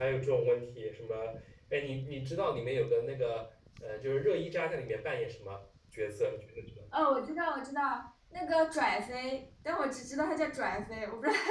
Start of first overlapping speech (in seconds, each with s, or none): none